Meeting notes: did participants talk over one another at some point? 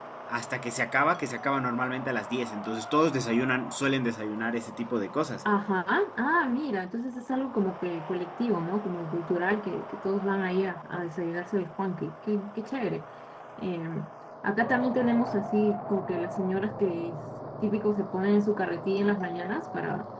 No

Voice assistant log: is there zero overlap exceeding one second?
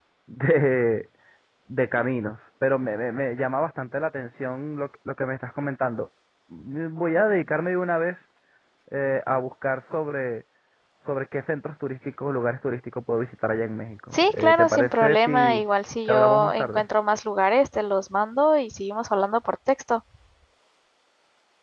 No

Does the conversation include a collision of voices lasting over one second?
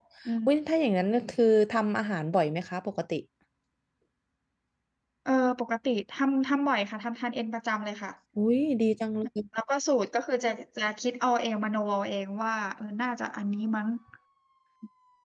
No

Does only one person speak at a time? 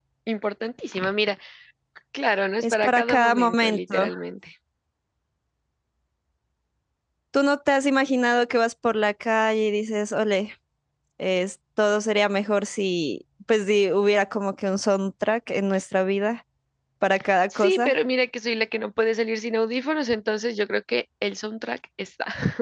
No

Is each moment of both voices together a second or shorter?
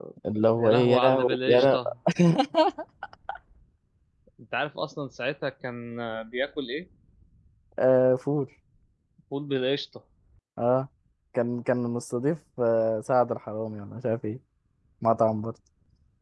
No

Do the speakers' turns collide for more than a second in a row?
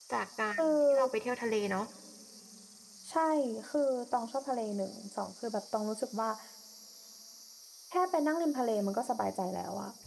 No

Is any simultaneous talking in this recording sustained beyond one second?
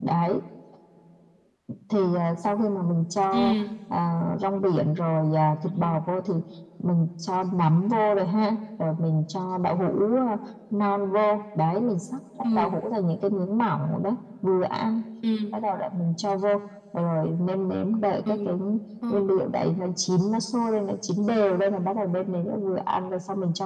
No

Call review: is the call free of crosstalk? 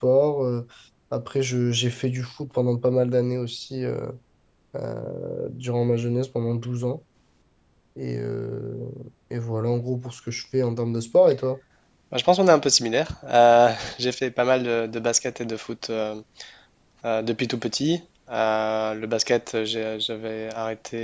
Yes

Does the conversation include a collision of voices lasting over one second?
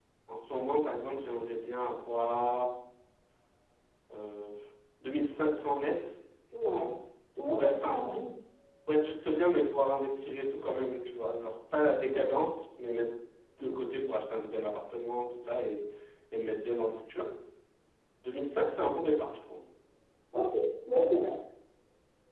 No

